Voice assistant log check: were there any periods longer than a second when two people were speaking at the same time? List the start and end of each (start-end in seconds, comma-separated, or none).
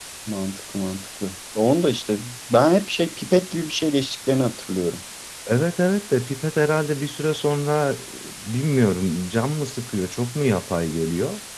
none